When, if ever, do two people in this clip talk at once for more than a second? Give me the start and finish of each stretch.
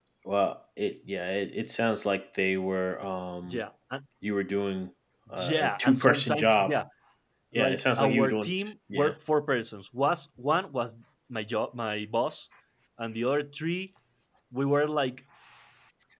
5.4-6.8, 7.5-9.1

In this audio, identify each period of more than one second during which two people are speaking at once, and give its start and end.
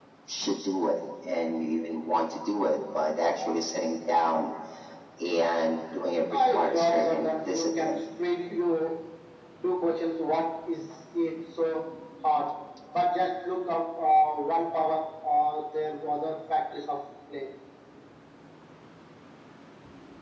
6.3-8.0

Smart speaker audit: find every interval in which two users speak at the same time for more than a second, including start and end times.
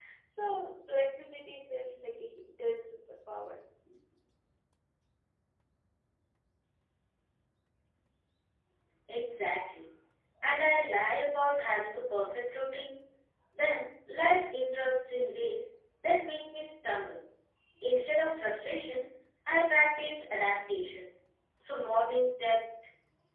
none

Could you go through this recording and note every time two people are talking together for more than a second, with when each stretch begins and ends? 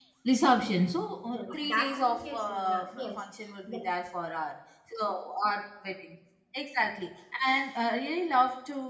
1.3-3.2

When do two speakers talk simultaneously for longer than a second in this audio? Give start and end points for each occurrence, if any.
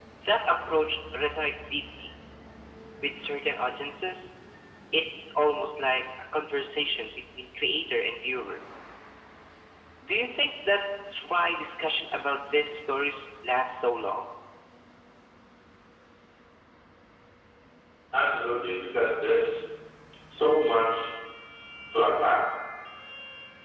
none

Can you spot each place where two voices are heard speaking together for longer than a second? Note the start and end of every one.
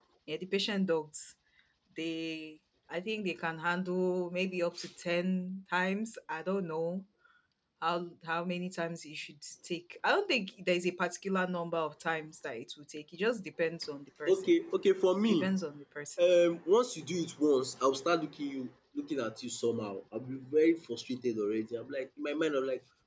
none

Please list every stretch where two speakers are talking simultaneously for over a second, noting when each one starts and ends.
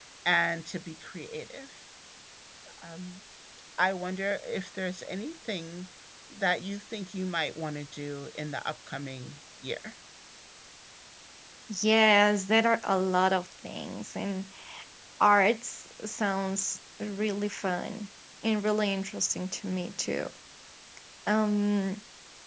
none

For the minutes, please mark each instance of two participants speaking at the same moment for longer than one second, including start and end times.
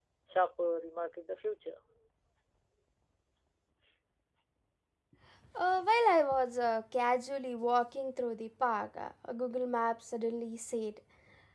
none

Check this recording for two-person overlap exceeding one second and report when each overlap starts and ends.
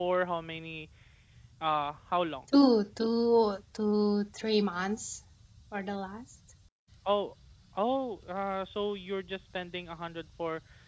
none

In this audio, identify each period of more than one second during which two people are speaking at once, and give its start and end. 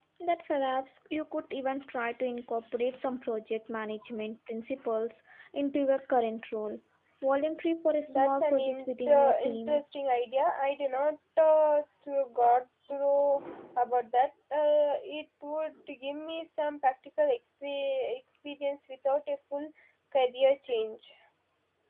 8.1-9.8

